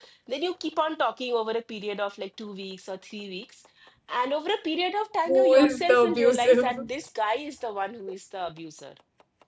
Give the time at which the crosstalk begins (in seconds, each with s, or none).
5.3 s